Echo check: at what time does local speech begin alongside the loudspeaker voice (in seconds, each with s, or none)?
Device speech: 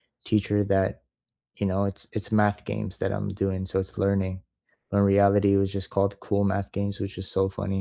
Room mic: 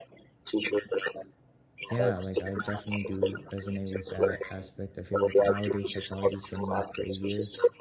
1.9 s